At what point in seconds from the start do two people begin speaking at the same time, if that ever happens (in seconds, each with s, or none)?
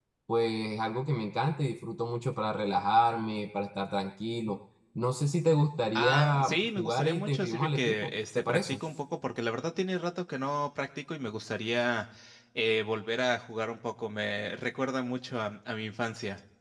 6.0 s